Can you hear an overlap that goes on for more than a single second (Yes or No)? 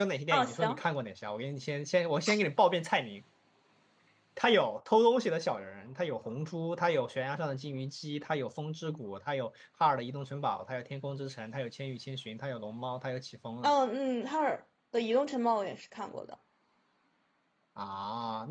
No